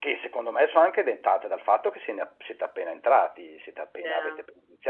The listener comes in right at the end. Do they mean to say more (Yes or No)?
No